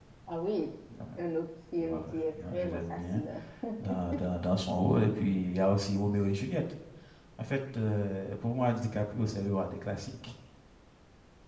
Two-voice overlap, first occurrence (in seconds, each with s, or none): 1.8 s